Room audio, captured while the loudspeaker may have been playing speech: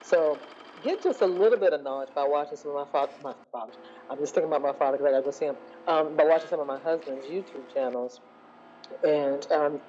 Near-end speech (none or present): none